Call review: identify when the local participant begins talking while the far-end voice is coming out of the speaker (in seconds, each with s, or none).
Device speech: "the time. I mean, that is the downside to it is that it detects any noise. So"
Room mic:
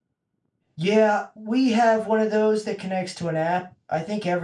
0.8 s